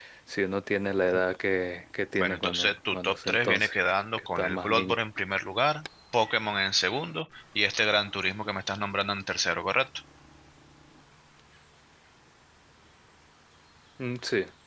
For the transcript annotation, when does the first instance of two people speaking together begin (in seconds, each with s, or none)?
2.2 s